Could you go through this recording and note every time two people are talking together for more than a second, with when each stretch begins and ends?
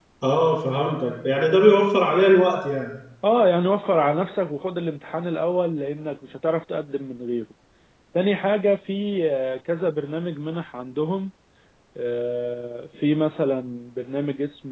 none

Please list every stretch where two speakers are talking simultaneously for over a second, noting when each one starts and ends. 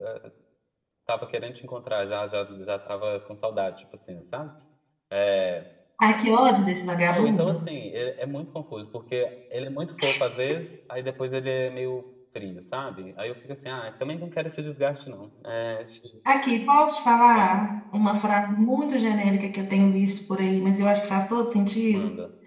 none

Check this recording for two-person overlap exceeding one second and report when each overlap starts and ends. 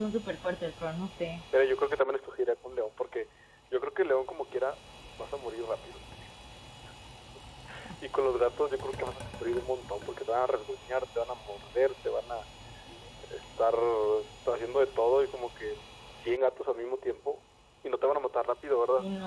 none

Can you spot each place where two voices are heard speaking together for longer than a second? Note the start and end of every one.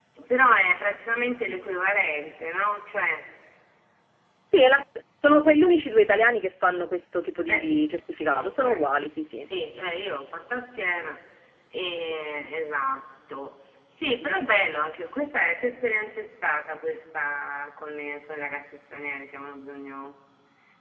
none

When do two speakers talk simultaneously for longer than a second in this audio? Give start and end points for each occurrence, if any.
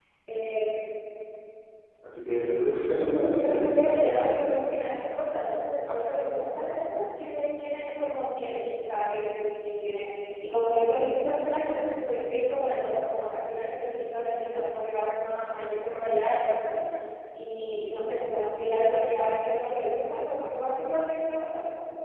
2.9-4.5

